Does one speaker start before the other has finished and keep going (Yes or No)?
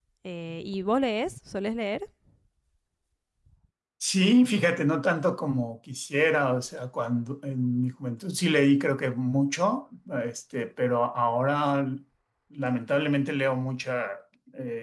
No